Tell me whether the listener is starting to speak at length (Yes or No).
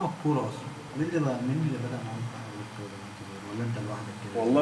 Yes